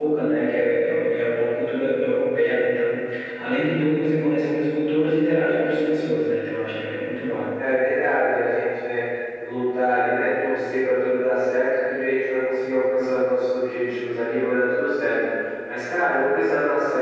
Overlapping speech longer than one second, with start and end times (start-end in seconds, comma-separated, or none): none